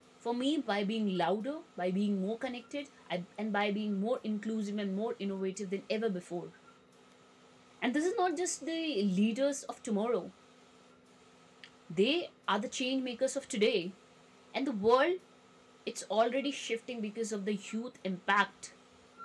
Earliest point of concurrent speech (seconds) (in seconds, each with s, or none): none